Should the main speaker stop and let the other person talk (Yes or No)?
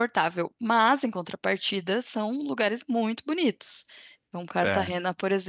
No